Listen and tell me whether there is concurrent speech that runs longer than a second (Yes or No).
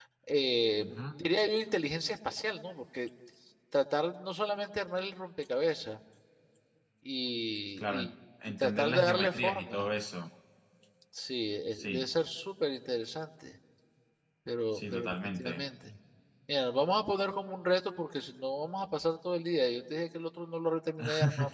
Yes